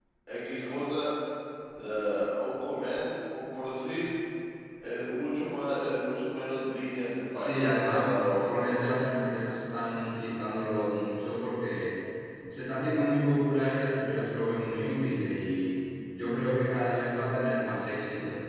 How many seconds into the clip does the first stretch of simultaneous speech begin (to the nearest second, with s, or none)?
7 s